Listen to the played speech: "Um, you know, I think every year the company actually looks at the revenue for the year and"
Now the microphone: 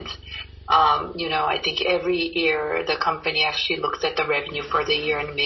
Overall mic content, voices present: echo only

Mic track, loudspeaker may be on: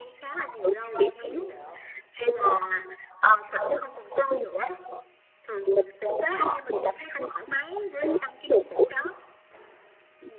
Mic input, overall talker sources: both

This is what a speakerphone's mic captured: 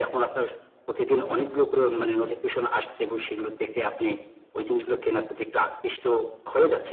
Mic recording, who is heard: echo only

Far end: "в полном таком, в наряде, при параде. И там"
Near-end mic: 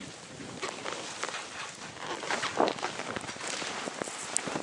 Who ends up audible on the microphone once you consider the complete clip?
neither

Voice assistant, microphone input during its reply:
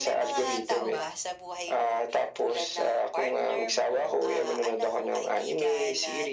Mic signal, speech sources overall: both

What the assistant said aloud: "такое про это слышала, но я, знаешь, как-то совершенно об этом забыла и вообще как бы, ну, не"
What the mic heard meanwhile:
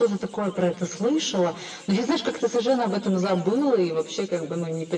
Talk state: echo only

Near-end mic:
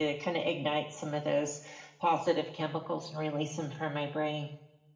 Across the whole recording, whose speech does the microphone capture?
user only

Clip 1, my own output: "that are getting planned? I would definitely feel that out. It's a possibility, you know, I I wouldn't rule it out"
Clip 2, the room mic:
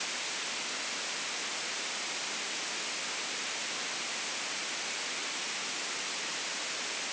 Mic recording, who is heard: neither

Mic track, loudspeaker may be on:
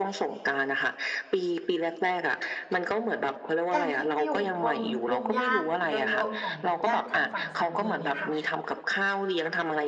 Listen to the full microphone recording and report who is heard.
both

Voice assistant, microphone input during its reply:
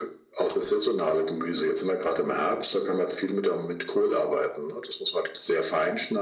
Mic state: echo only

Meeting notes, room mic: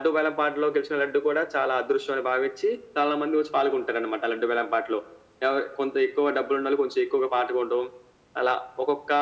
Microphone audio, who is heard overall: echo only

